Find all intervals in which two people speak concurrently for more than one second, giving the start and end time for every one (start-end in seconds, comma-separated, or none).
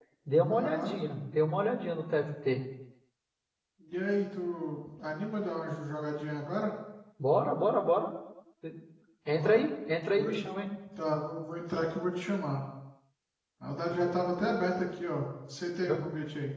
none